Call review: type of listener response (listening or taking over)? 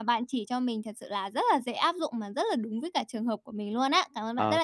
taking over